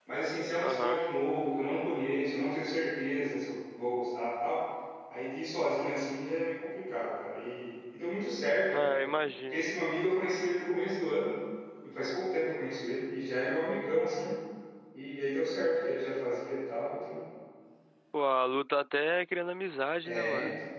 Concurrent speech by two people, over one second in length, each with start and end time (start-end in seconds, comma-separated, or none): none